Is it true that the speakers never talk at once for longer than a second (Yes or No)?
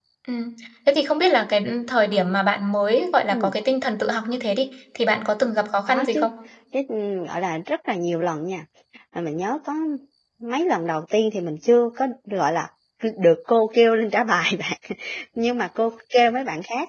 Yes